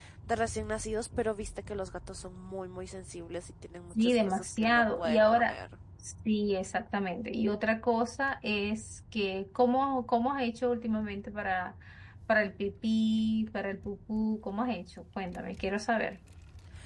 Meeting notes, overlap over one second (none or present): present